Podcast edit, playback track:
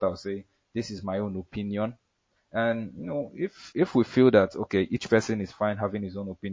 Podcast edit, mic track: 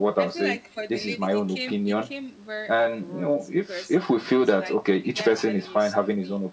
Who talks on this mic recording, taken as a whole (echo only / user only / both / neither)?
both